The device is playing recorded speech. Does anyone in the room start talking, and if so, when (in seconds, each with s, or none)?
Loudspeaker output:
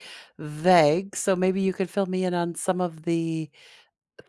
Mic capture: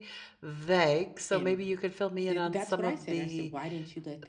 1.3 s